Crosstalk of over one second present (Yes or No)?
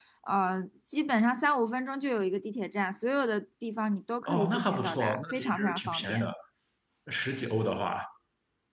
Yes